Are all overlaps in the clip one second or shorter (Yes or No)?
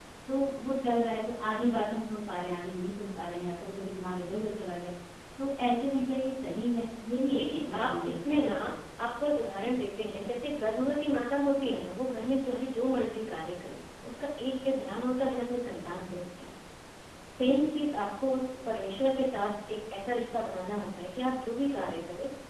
No